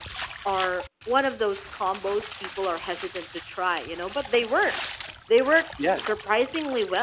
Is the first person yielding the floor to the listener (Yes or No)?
No